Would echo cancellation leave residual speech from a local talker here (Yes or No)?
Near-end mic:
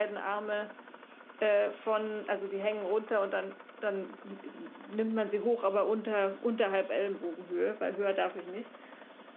Yes